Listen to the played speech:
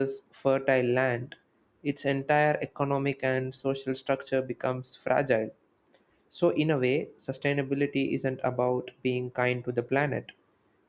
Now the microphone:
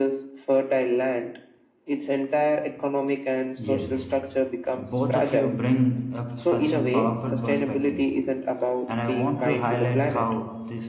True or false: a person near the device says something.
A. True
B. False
A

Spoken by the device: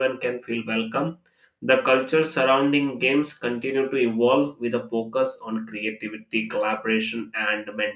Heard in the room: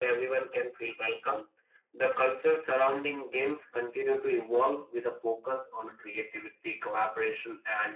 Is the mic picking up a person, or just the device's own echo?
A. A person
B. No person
B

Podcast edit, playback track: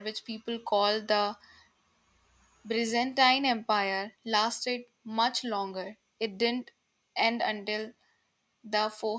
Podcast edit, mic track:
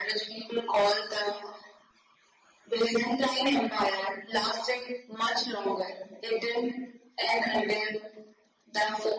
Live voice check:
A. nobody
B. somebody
A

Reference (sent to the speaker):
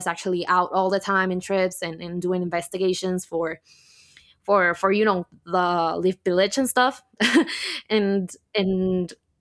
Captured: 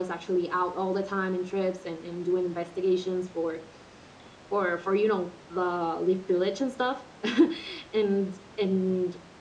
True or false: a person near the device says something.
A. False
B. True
A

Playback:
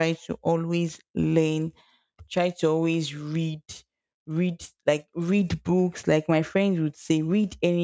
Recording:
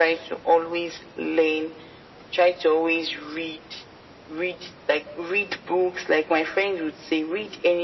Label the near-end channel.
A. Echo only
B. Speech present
A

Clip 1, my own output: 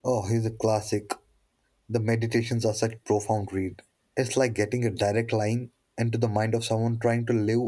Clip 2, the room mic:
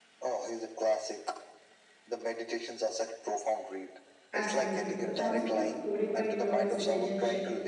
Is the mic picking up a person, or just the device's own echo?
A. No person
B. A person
B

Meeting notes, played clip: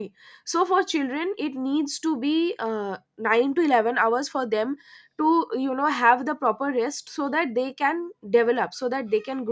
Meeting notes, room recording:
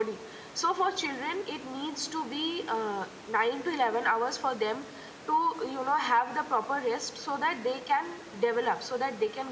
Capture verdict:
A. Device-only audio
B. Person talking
A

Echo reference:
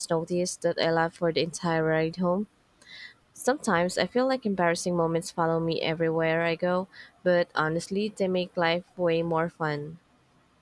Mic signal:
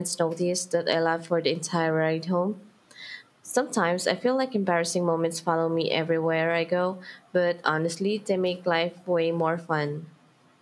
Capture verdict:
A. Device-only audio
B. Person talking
A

